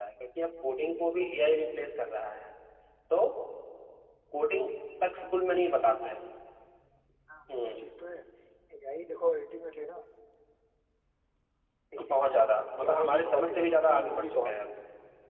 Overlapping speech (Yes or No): Yes